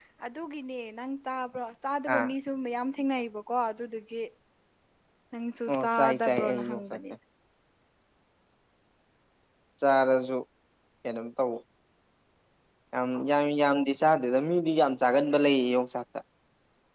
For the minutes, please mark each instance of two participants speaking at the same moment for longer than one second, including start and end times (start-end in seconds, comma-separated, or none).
5.7-7.0